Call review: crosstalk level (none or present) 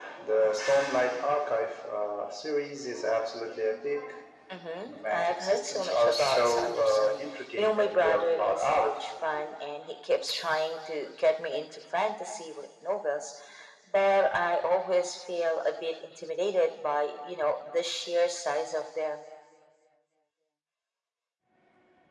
present